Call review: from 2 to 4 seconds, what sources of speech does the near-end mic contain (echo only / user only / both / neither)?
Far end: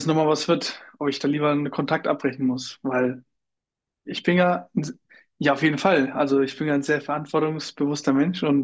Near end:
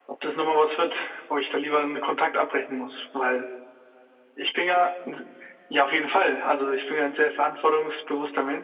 echo only